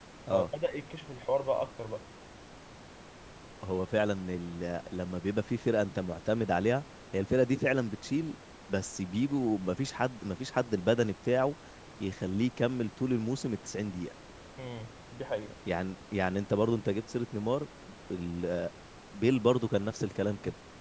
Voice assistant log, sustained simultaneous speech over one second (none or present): none